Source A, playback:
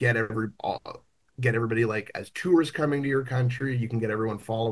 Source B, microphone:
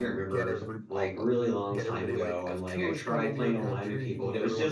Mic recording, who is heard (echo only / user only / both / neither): both